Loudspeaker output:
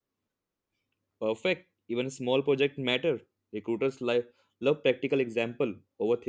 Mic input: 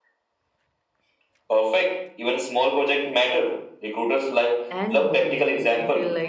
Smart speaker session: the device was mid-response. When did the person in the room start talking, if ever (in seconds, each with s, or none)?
4.7 s